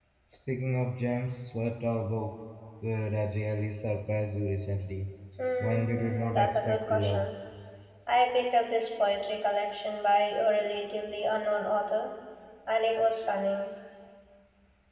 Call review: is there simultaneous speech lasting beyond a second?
Yes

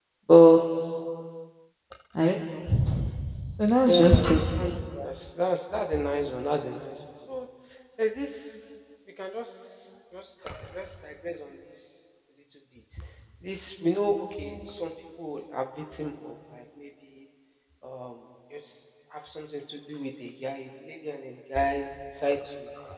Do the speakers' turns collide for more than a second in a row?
No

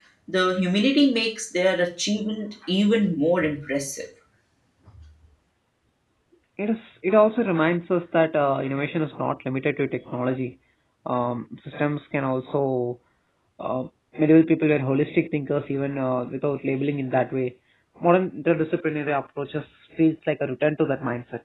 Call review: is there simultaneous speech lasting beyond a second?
No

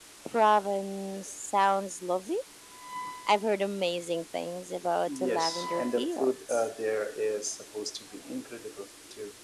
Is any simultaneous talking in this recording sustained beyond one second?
Yes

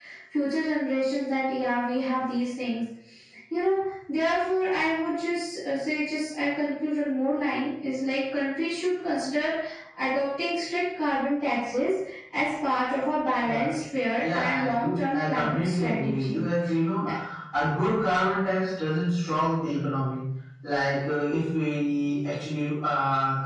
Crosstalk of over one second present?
Yes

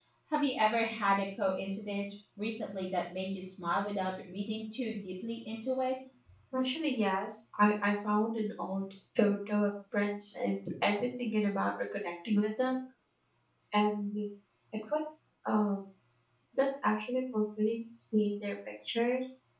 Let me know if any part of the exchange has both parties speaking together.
No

